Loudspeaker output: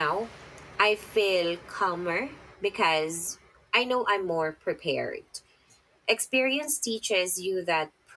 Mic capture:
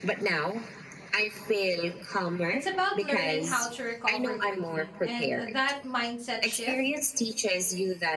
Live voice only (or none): it's about learning how to recover quickly. And that mindset shift